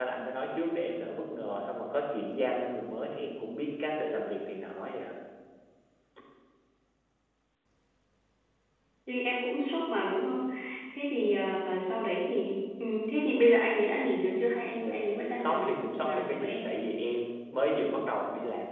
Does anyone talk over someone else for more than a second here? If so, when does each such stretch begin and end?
15.4-16.7

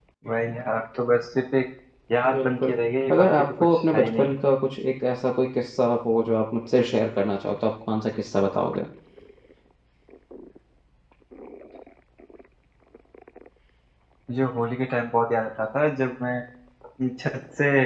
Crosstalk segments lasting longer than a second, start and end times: 3.1-4.4

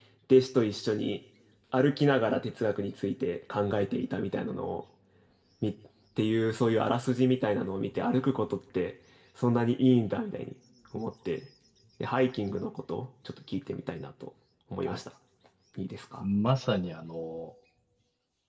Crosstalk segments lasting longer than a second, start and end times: none

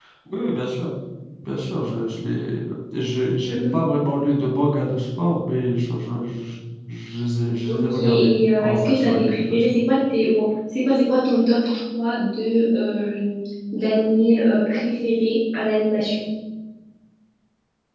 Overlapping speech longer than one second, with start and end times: 7.7-9.6

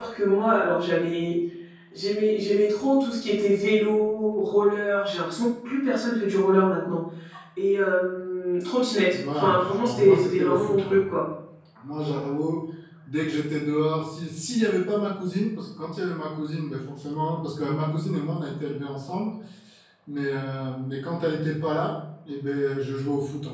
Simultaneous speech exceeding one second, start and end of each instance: 9.1-11.0

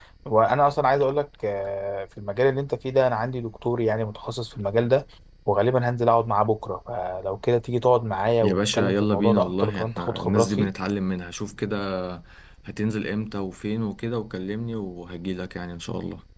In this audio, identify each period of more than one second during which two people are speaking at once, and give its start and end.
8.4-10.7

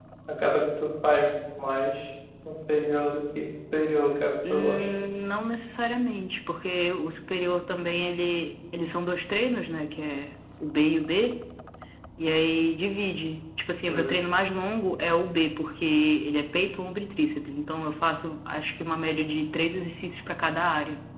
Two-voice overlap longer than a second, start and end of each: none

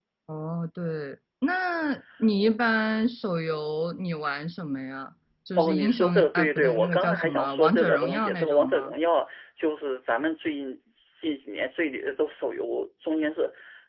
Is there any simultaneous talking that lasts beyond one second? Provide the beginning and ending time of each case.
5.6-8.9

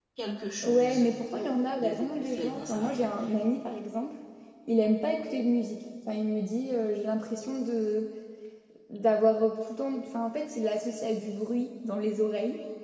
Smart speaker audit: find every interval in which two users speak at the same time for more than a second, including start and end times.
1.8-3.1

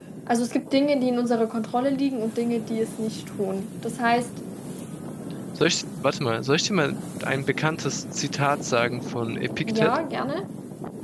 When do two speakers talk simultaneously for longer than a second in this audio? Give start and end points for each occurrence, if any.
none

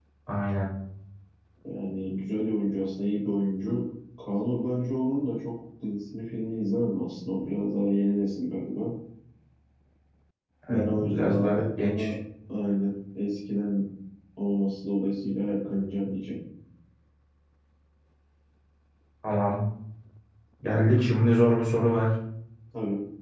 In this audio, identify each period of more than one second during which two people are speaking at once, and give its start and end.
10.7-12.1

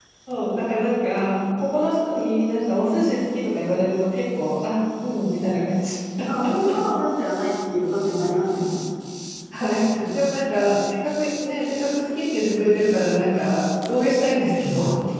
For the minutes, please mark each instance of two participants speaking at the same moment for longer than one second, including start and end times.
none

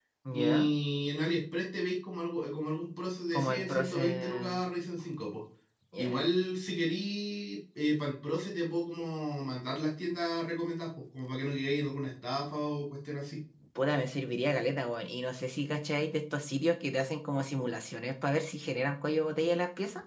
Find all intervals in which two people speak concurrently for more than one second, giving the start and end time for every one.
3.3-4.6

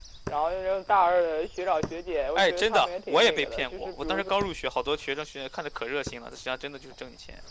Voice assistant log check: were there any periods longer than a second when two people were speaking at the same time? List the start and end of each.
2.4-4.3

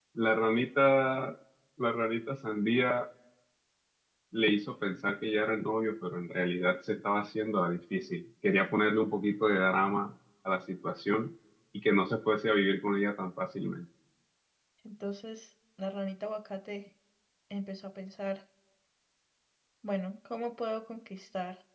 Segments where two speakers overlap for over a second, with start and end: none

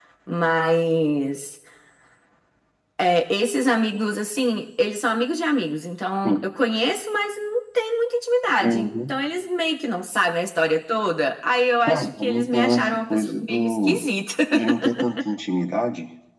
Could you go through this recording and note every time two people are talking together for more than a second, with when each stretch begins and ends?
11.9-14.1

